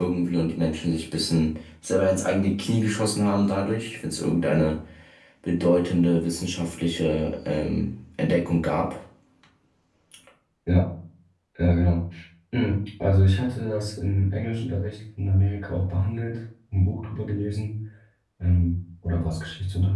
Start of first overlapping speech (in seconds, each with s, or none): none